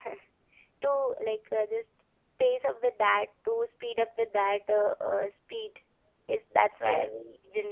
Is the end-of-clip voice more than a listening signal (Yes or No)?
No